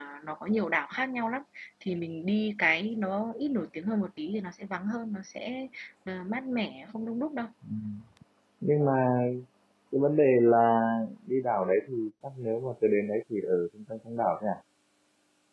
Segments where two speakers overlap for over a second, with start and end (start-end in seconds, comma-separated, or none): none